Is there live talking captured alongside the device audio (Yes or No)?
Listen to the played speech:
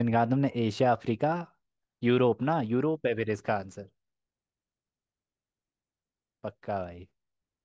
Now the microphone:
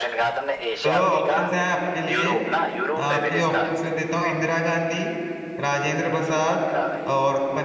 Yes